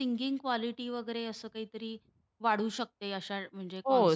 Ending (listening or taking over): taking over